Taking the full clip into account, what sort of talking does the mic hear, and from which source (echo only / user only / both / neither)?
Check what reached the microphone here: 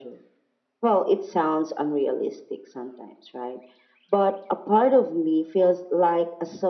echo only